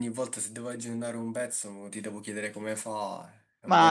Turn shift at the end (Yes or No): Yes